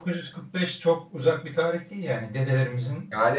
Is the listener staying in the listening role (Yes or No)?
No